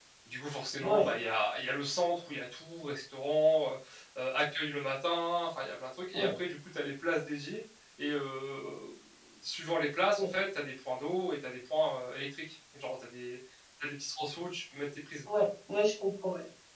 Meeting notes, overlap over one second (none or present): none